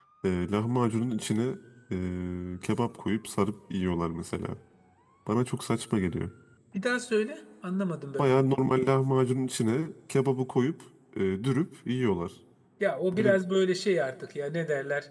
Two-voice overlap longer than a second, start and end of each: none

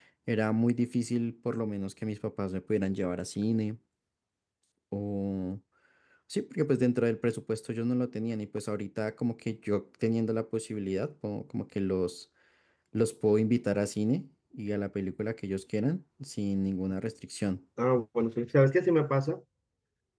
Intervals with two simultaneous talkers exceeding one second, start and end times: none

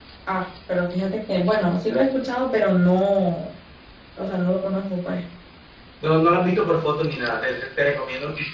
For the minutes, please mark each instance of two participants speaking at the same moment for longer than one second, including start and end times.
none

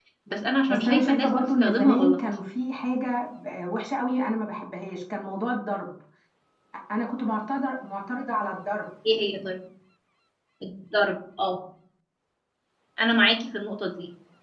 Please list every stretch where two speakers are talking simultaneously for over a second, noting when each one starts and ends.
0.7-2.2

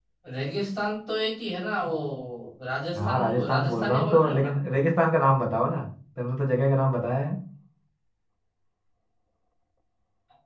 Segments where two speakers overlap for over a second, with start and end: 3.0-4.5

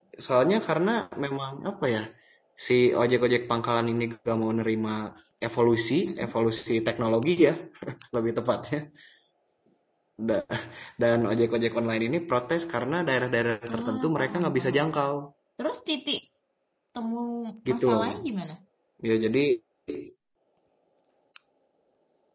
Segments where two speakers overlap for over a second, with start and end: 13.7-15.1

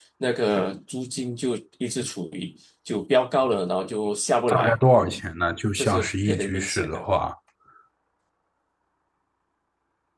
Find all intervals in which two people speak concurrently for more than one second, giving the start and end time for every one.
5.8-7.0

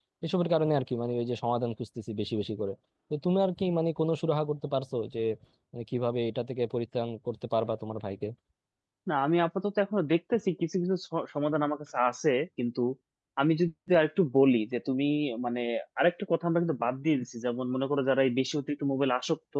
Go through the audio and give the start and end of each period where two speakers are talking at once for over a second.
none

